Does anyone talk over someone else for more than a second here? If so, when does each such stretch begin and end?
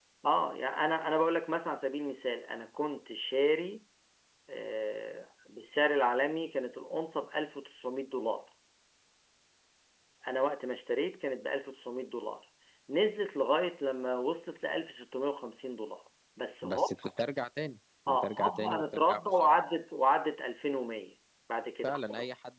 18.1-19.6

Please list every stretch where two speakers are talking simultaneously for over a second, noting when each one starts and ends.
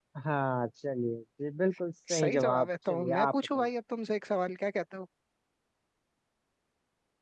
2.1-3.6

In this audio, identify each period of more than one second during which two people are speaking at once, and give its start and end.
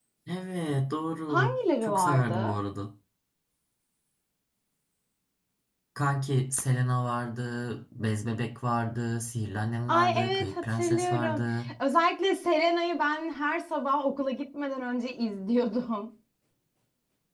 1.3-2.6, 9.9-11.4

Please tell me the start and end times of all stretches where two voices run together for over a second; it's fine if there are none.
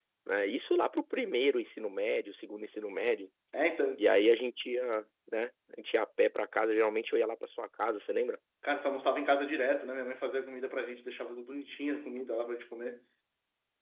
none

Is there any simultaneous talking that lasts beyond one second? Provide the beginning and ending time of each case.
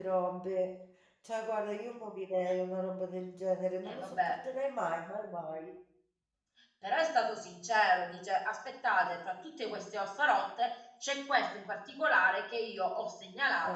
none

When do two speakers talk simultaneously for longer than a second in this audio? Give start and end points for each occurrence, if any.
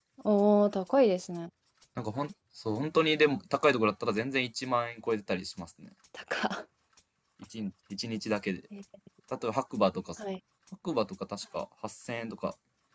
none

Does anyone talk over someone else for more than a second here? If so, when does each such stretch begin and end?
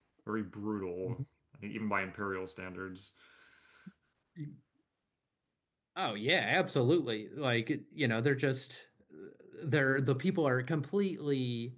none

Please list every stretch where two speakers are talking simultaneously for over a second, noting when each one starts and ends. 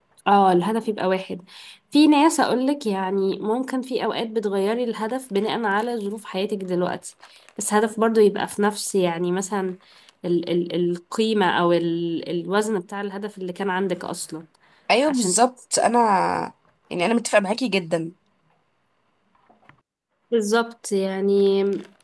none

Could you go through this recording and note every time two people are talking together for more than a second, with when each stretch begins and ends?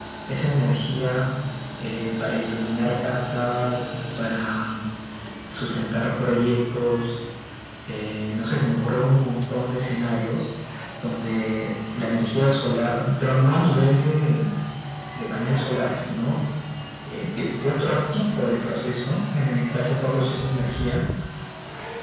none

